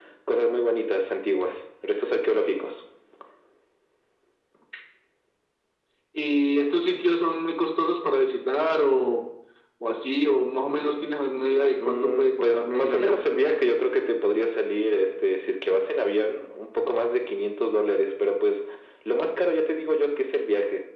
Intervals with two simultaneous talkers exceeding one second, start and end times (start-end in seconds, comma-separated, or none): 11.8-13.2